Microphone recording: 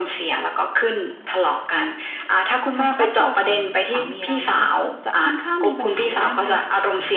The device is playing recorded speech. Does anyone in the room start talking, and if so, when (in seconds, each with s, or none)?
2.8 s